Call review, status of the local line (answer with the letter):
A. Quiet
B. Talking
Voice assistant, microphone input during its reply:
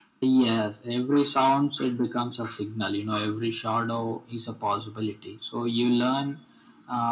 A